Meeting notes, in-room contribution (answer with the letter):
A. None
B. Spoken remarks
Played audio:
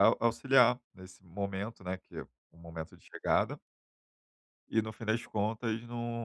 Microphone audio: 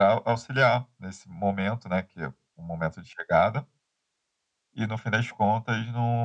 A